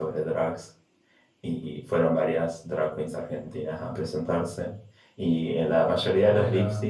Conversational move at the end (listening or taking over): listening